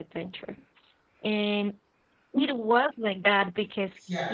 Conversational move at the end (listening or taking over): listening